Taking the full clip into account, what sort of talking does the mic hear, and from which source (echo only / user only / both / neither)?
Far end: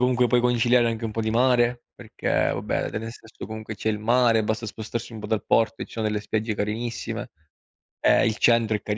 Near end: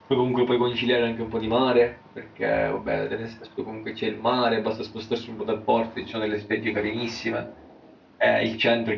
echo only